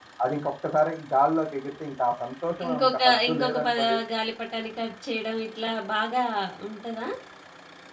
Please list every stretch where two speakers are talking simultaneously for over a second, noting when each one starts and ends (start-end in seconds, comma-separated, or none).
2.6-4.0